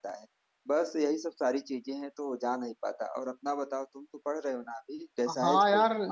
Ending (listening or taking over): taking over